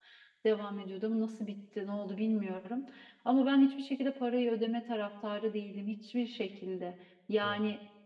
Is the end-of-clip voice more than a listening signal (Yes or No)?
No